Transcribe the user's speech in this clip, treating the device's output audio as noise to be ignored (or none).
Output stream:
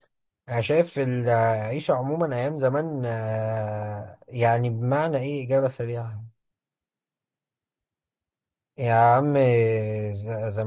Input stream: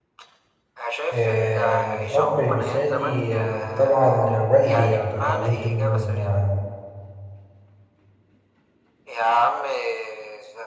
آه الأب المثالي آه طبعا والدي يعني اتعلمت منه ال-